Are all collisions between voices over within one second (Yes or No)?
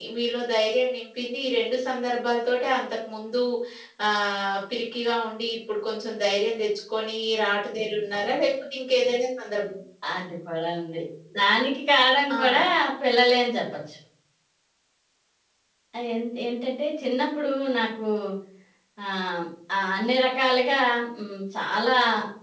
Yes